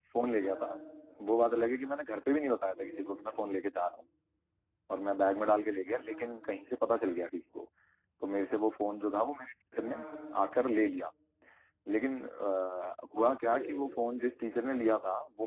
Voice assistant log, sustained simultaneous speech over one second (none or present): none